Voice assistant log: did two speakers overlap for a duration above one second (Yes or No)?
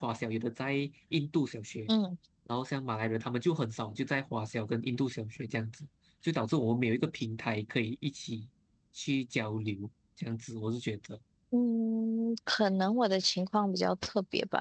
No